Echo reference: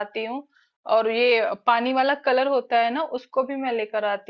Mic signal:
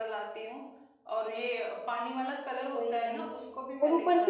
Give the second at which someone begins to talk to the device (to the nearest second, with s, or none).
3 s